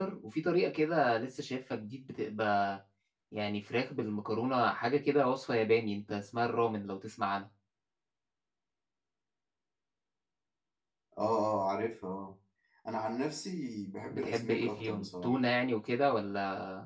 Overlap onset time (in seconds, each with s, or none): 14.1 s